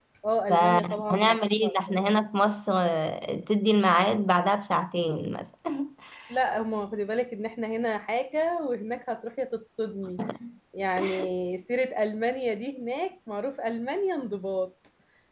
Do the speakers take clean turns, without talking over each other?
No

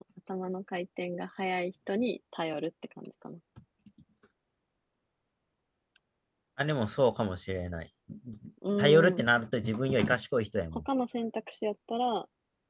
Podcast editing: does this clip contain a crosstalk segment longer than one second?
No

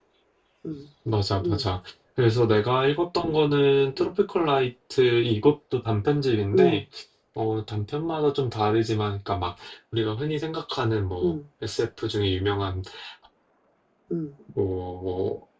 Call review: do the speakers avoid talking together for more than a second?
Yes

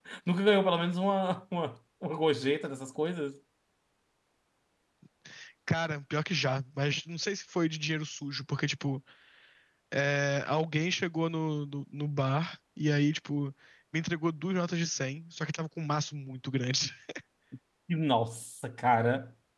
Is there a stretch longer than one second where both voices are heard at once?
No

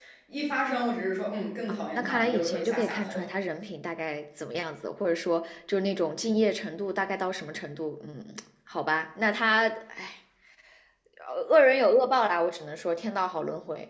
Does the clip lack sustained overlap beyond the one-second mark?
No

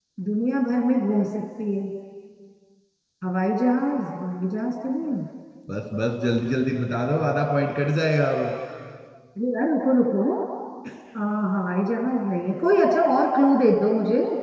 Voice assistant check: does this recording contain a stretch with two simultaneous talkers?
No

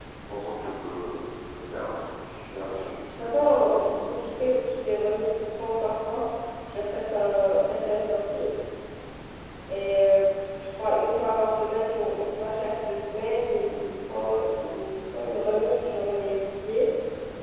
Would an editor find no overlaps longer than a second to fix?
Yes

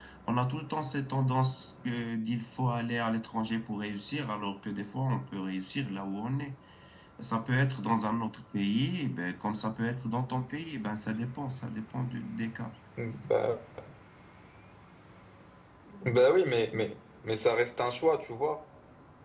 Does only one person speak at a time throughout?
Yes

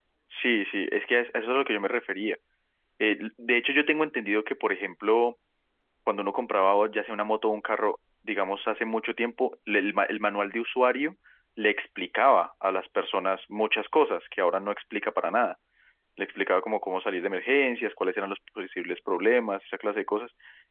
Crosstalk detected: No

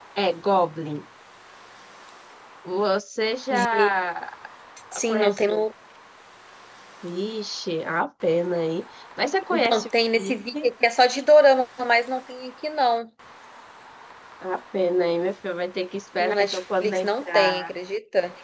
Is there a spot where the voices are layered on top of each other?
Yes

